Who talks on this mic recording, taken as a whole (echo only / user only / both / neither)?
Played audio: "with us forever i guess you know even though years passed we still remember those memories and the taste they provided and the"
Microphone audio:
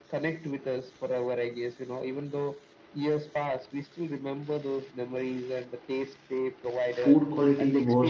both